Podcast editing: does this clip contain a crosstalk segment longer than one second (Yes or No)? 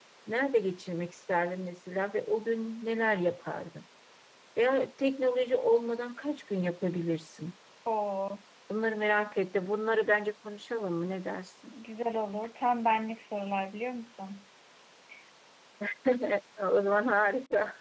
No